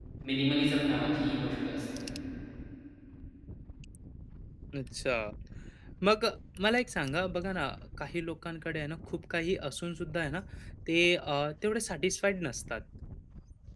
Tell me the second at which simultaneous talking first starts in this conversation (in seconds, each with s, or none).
none